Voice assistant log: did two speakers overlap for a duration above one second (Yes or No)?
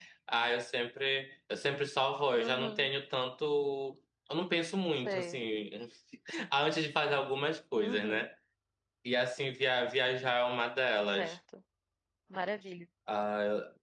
No